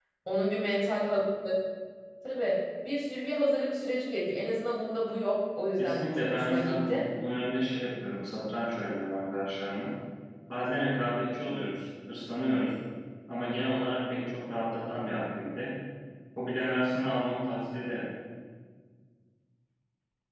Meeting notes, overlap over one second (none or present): present